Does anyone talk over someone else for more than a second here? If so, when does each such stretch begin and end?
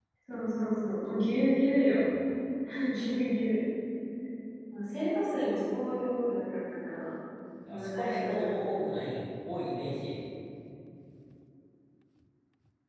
7.7-9.0

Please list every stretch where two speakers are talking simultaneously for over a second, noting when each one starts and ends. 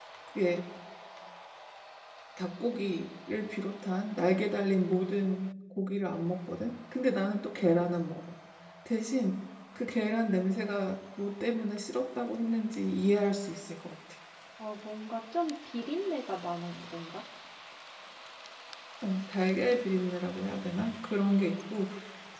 none

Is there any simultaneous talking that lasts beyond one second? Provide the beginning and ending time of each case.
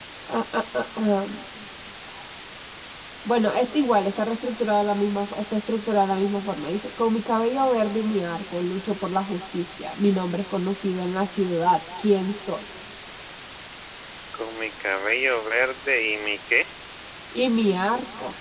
none

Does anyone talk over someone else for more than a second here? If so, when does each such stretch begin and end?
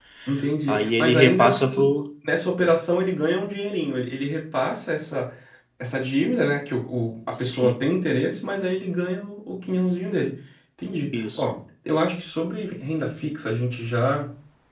0.7-1.9

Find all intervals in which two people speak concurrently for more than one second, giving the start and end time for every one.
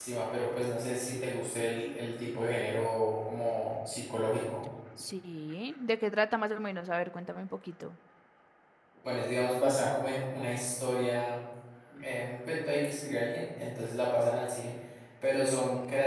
none

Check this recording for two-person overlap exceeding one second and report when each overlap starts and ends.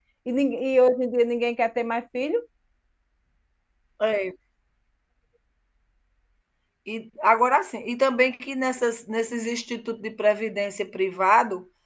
none

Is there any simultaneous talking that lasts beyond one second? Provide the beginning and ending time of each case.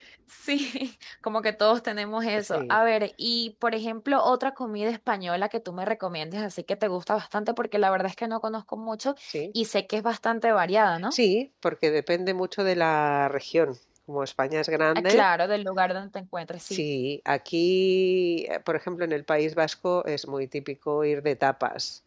none

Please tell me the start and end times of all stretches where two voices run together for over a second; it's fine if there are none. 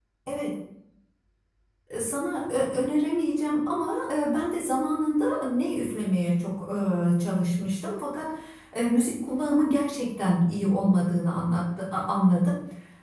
none

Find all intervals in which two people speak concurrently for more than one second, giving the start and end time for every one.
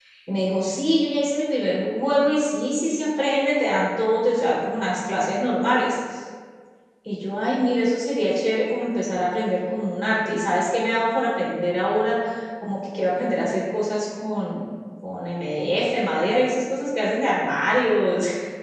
none

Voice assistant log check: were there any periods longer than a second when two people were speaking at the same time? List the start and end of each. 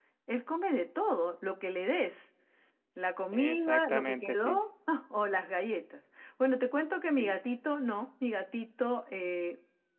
3.3-4.6

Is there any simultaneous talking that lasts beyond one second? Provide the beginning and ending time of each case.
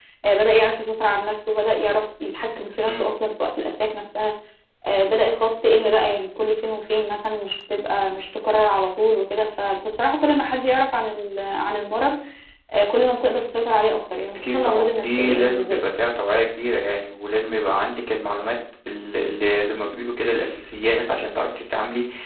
14.3-15.8

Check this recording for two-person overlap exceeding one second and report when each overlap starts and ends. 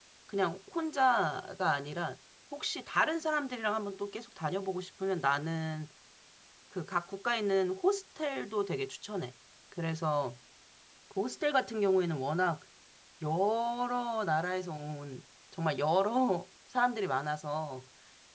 none

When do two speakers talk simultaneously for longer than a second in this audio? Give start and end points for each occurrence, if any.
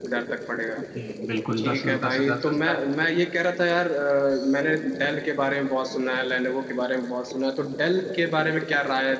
1.6-2.8

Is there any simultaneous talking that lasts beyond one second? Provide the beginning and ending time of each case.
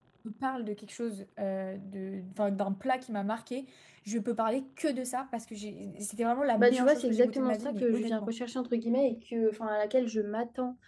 6.6-8.3

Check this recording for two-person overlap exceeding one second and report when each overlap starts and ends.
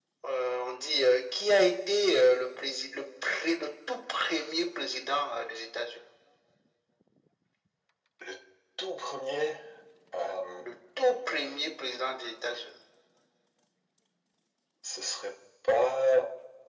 none

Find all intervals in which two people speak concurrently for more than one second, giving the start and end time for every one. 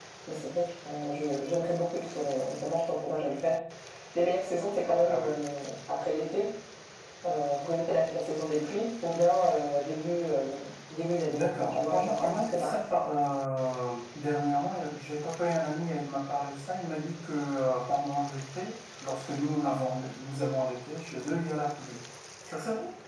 11.3-12.8

